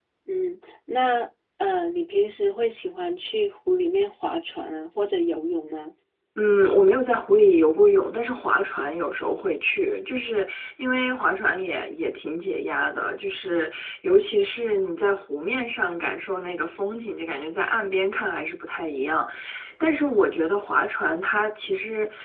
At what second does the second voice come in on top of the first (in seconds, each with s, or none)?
none